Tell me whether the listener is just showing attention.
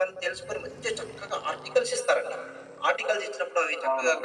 Yes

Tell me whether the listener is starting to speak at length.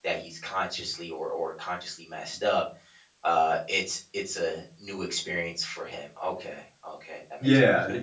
Yes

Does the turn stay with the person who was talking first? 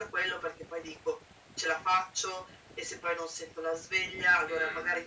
Yes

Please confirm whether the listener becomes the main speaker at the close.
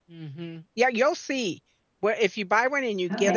Yes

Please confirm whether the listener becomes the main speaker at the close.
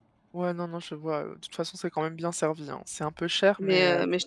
Yes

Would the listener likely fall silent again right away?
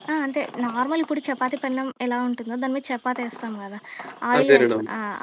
Yes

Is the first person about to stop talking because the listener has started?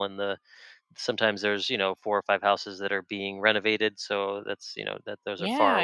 No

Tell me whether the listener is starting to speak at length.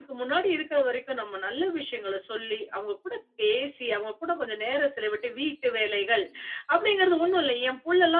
No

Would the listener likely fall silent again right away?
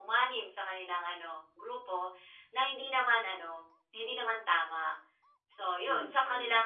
Yes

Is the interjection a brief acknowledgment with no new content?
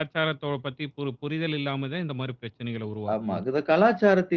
No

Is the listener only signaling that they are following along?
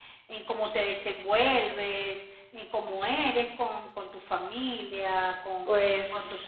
Yes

